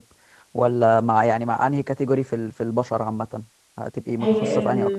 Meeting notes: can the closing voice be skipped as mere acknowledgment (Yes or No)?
No